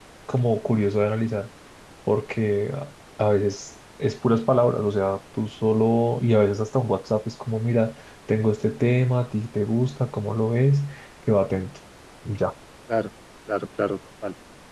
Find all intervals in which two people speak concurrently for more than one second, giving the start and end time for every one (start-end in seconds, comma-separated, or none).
none